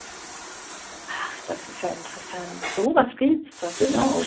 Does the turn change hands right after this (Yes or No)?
Yes